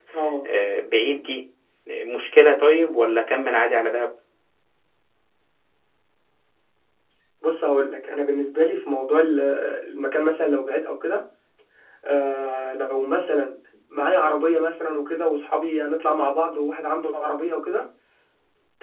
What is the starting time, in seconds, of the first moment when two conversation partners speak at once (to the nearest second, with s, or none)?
none